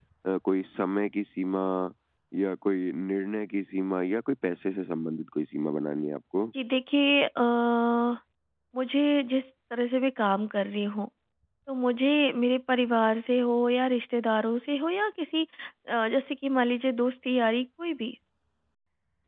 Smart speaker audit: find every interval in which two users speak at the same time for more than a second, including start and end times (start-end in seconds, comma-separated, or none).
none